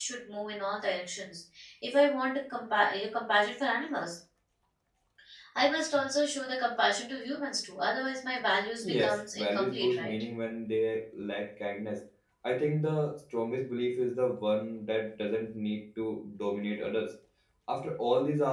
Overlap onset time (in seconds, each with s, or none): 8.8 s